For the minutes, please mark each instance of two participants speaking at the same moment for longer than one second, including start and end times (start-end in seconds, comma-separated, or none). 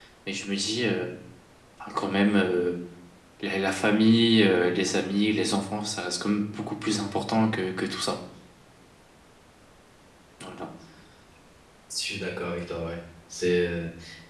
none